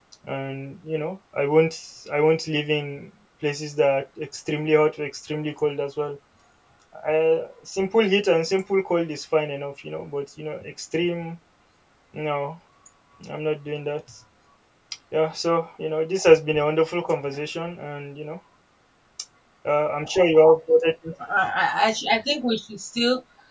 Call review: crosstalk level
none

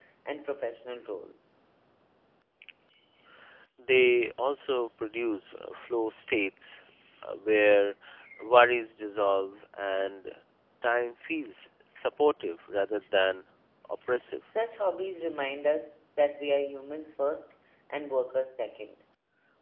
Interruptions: none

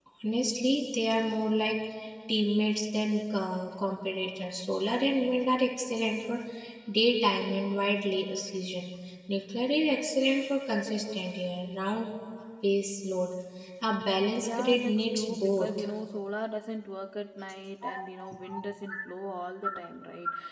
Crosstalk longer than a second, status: present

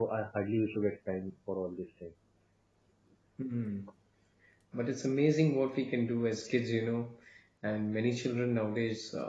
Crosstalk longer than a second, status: none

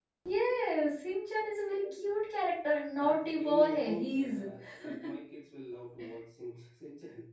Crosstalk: present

